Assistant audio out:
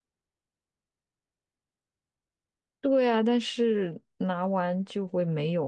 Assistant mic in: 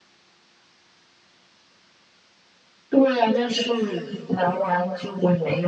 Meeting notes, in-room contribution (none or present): none